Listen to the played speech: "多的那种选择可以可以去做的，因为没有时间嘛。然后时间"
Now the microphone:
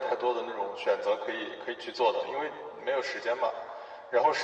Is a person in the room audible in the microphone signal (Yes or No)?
No